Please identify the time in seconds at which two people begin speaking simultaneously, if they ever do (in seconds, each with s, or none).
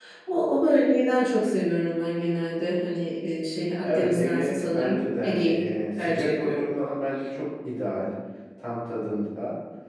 3.8 s